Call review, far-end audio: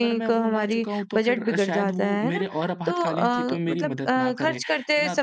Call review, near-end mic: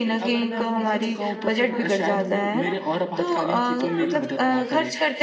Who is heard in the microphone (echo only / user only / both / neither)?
both